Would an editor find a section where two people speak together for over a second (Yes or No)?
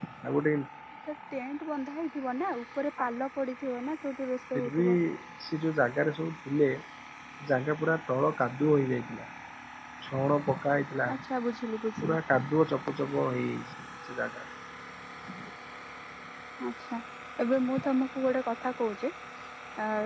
No